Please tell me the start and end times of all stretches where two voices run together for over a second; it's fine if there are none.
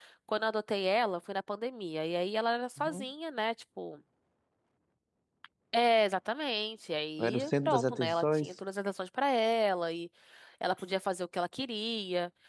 7.2-8.5

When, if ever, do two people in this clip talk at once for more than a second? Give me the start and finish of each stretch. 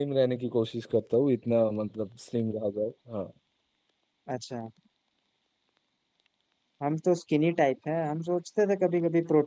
none

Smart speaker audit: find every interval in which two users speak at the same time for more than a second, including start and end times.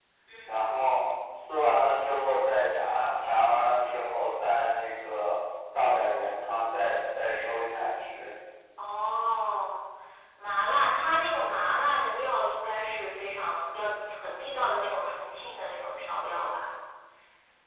none

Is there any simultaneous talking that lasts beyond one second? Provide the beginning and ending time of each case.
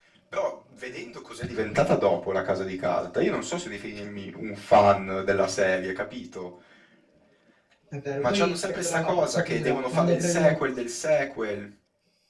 8.2-10.6

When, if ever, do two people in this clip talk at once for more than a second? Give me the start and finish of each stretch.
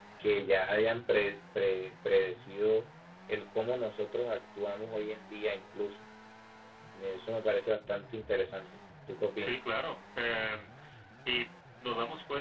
none

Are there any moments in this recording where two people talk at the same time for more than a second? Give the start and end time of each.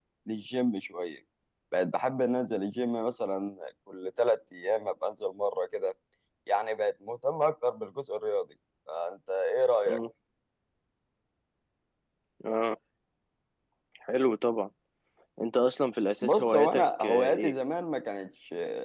16.2-17.5

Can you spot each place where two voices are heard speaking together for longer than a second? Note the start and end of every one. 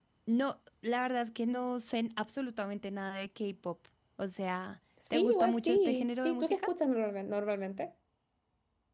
5.1-6.7

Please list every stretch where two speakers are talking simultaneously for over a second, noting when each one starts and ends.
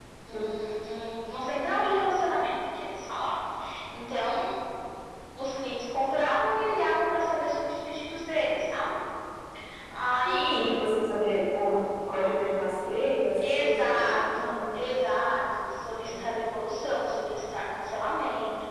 13.4-14.8

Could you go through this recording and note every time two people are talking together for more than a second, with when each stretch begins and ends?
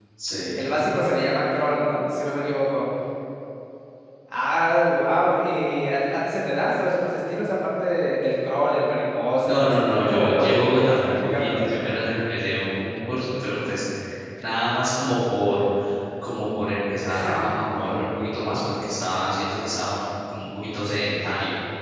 9.4-11.6

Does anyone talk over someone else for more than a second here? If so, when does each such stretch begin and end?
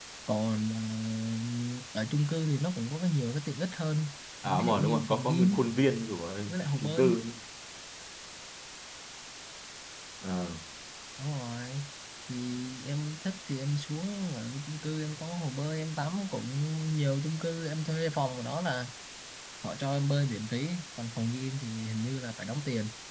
4.4-5.6

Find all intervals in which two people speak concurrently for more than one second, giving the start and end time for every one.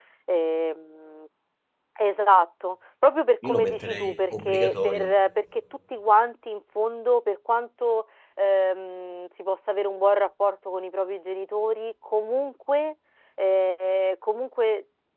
3.4-5.1

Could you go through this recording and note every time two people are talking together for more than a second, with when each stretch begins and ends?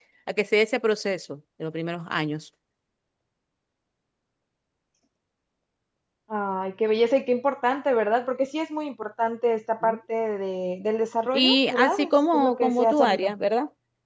11.3-13.3

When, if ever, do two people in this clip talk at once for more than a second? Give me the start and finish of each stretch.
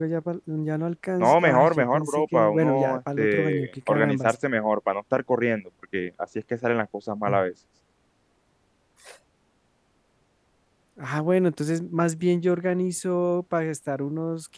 1.2-4.3

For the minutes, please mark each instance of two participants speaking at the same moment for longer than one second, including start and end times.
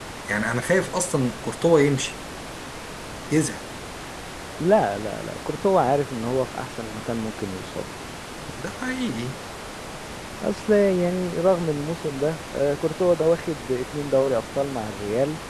none

